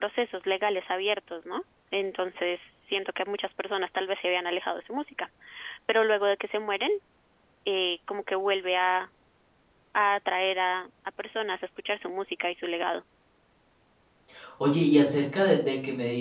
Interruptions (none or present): none